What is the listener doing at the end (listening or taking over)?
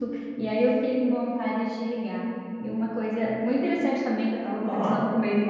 listening